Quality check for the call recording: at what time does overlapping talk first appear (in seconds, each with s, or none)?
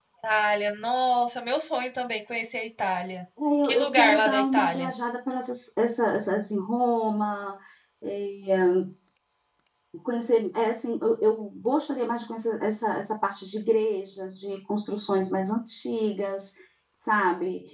3.6 s